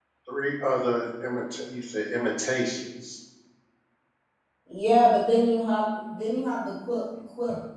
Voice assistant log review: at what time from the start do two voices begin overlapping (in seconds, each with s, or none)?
none